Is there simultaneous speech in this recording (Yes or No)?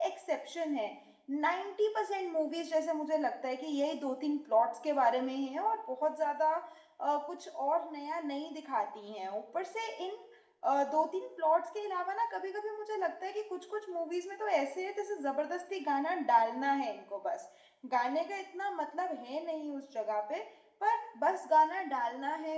No